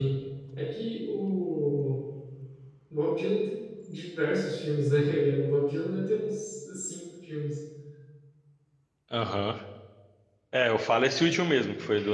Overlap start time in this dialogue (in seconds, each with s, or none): none